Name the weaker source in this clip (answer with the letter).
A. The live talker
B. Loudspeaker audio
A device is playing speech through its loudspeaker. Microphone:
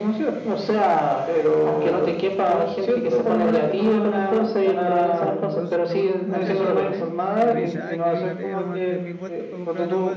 A